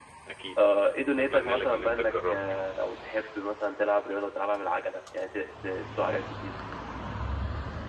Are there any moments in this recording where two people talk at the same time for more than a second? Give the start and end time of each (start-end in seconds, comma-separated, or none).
1.2-2.7